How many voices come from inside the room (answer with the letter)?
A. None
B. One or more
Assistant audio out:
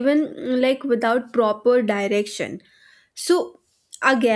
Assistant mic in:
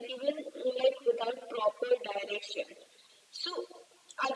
A